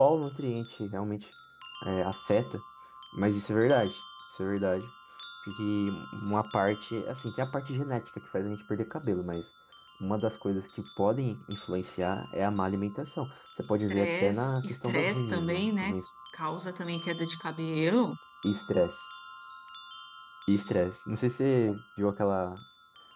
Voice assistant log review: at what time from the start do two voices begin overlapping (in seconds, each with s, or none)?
13.9 s